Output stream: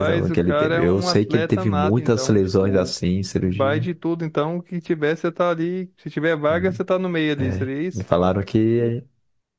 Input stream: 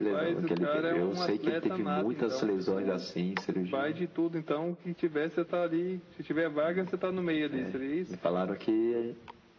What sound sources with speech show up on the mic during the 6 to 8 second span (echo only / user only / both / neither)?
echo only